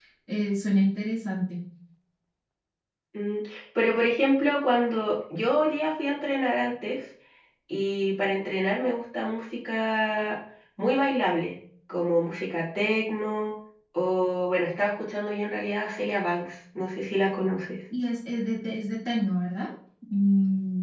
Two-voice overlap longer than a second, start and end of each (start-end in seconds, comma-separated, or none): none